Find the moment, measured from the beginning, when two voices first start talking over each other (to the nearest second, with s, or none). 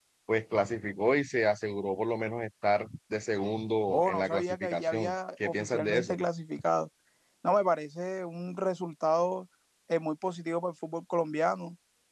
4 s